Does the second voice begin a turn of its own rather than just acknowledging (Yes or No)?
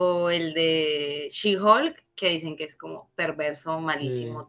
No